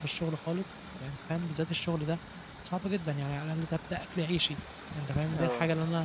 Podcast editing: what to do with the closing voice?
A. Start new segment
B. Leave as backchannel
B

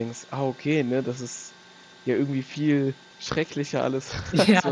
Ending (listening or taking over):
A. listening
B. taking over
B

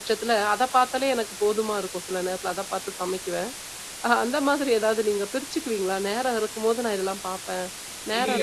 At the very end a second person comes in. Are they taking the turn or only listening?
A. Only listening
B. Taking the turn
B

